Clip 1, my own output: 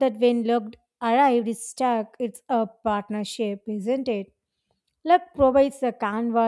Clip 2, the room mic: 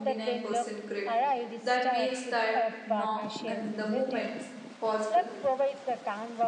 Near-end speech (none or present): present